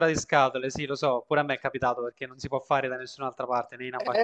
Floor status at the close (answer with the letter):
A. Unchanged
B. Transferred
B